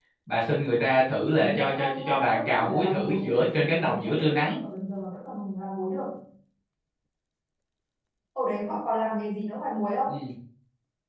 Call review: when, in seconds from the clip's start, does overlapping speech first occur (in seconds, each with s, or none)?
1.1 s